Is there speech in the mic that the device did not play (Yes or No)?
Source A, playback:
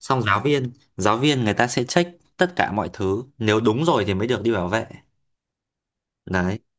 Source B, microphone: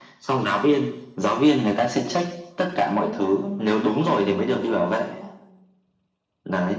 Yes